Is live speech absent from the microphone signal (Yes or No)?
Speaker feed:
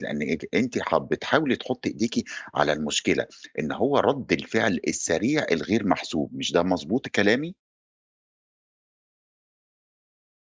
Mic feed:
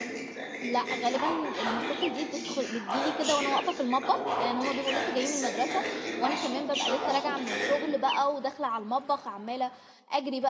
No